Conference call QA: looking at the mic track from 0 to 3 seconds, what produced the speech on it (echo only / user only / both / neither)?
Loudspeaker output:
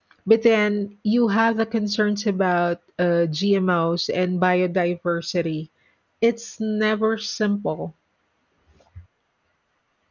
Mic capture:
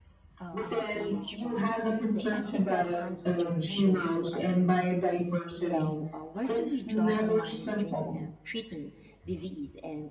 both